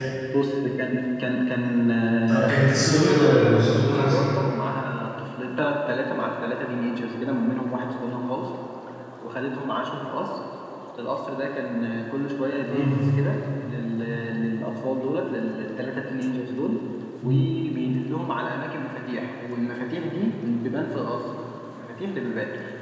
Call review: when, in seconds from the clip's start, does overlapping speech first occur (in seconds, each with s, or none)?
2.3 s